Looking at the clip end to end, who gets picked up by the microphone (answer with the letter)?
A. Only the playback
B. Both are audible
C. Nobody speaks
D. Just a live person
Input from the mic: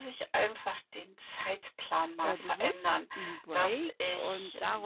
B